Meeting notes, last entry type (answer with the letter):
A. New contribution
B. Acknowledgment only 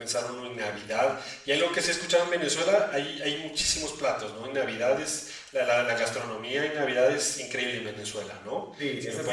A